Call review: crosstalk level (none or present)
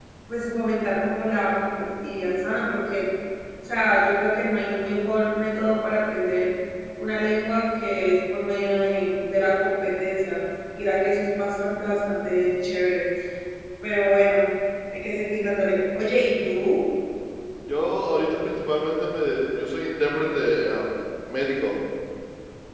none